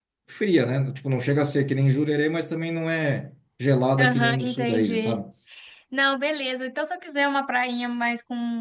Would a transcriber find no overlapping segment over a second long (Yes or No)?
No